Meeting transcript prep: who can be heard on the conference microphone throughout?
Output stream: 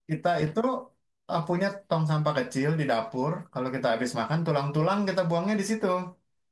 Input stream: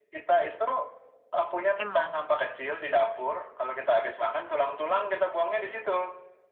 both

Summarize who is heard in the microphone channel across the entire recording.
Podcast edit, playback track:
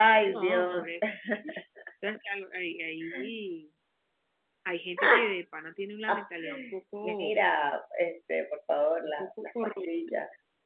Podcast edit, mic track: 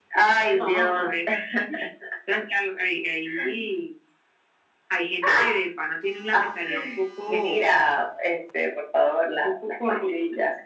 echo only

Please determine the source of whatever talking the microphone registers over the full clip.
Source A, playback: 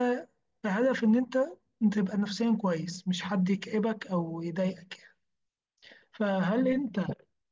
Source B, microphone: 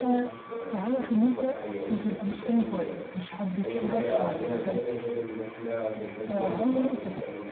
both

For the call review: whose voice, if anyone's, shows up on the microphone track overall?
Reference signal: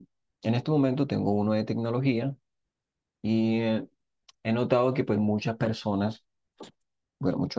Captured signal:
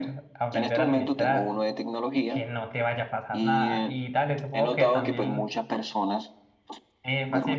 both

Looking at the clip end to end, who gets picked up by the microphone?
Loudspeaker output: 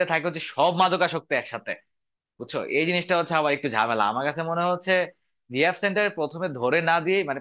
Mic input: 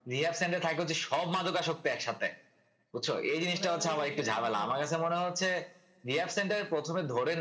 both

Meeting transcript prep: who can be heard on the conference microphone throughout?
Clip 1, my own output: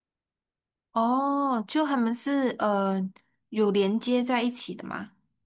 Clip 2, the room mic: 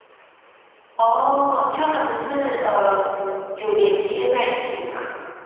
echo only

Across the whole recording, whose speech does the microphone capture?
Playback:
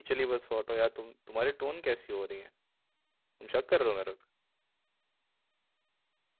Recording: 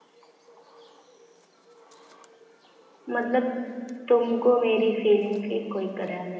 user only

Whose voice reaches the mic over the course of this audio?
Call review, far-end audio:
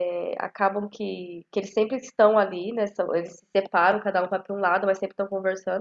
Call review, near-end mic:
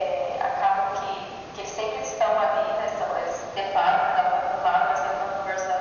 echo only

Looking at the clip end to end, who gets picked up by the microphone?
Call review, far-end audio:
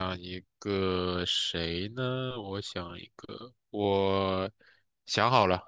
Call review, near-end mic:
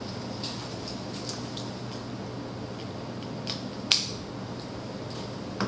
neither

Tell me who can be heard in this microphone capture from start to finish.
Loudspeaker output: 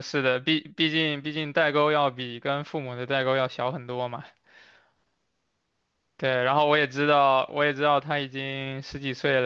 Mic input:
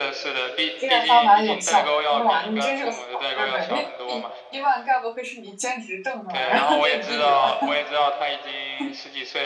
both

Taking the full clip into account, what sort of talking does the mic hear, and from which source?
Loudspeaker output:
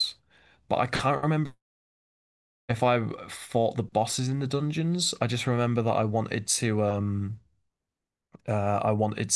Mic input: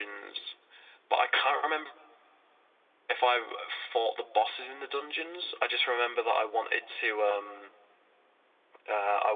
echo only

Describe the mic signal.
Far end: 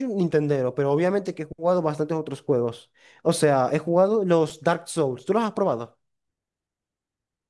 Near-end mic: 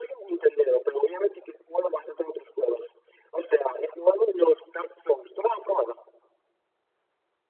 echo only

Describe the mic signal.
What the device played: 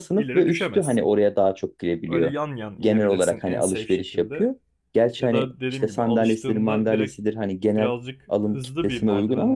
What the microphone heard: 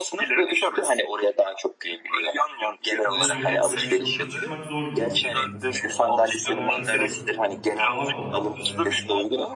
both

